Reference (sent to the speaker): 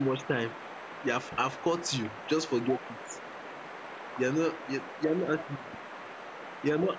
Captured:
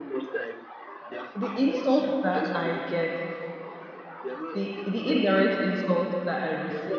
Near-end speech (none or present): present